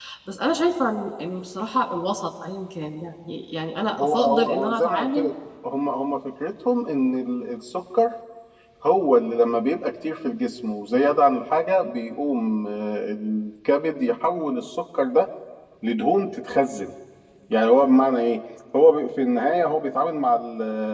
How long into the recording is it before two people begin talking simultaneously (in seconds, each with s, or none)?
4.0 s